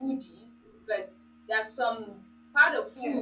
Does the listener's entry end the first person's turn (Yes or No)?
No